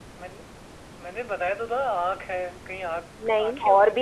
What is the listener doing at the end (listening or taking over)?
taking over